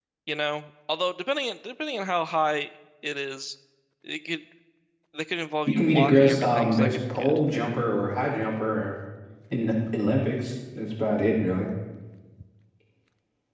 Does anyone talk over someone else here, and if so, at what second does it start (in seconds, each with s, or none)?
5.7 s